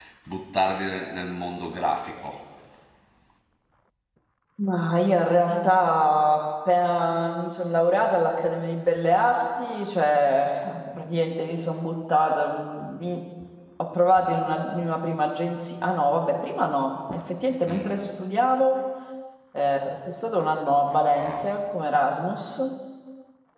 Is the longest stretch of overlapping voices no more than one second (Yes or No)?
Yes